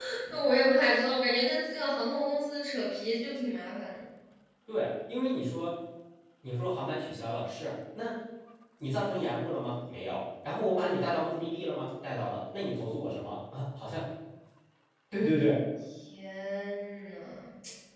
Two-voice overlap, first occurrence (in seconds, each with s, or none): none